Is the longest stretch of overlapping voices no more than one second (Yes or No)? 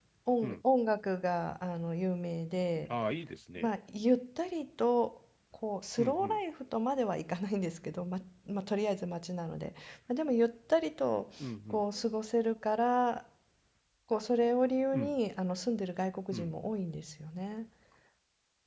Yes